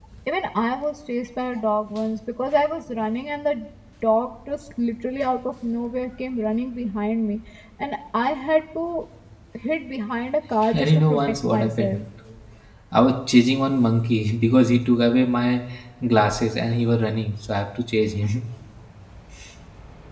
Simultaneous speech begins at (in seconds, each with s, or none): 10.7 s